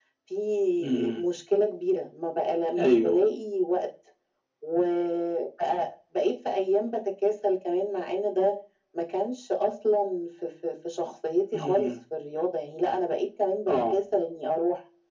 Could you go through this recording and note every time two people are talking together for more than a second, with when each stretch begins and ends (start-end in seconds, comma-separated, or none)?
none